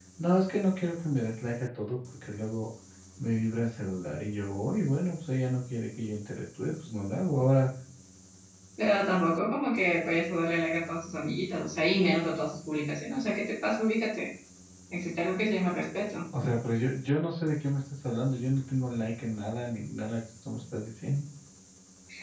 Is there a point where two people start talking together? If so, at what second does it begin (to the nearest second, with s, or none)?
none